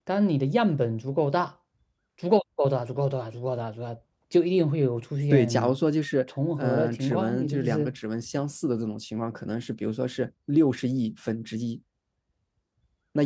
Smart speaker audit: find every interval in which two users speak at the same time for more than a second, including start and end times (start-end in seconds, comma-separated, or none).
6.6-7.9